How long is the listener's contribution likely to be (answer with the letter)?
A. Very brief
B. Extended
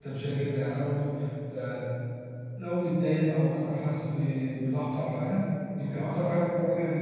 A